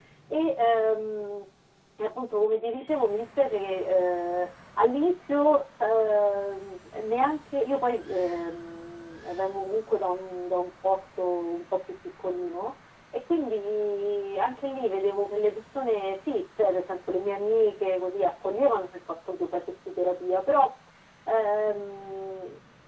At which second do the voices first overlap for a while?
none

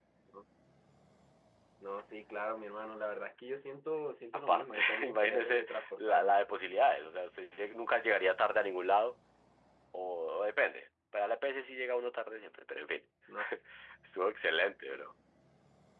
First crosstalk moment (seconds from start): 4.5 s

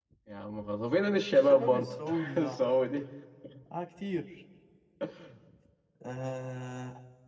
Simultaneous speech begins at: 1.3 s

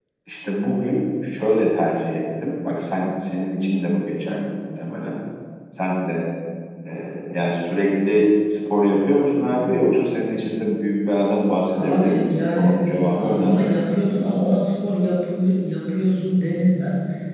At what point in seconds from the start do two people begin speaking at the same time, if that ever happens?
11.8 s

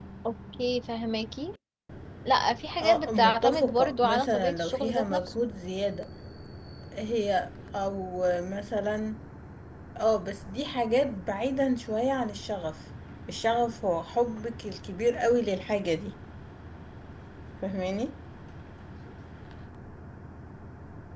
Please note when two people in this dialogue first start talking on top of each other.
2.8 s

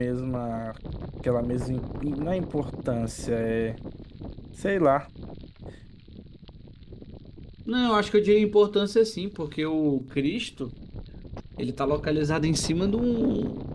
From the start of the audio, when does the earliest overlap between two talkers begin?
none

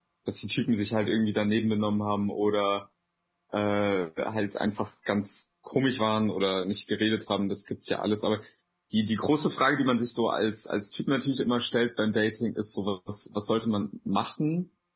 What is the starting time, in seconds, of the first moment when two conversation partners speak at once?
none

